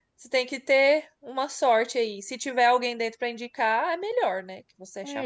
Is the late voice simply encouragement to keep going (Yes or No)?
No